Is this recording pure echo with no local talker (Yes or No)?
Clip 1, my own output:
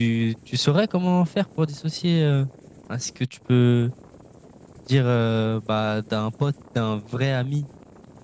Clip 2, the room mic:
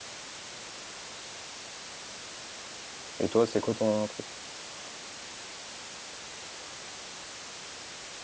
No